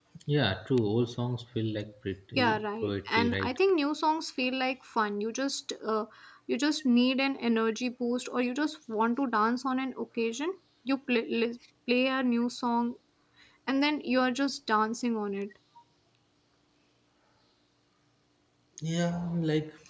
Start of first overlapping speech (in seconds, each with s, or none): 2.4 s